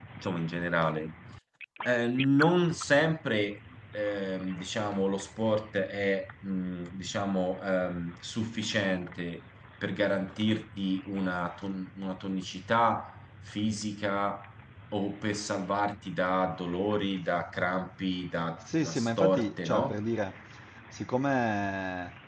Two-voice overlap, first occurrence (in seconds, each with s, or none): 18.6 s